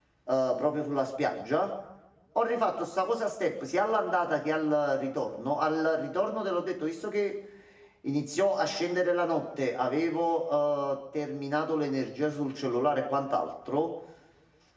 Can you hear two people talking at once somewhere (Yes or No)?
No